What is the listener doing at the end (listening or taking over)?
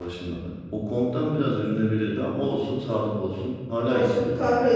taking over